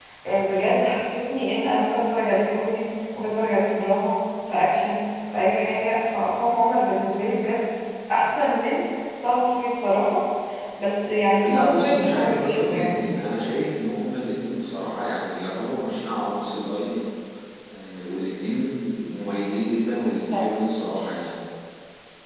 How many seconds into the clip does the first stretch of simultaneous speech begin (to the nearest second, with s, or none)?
11 s